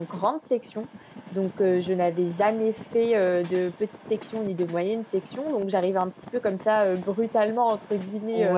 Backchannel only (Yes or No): Yes